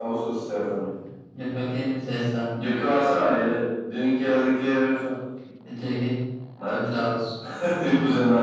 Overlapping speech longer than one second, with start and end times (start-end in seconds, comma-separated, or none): none